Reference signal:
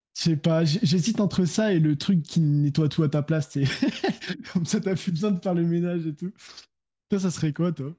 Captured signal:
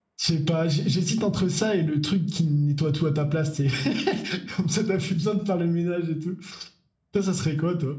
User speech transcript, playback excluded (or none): none